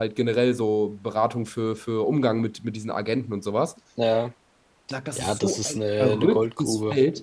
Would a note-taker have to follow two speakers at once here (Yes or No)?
Yes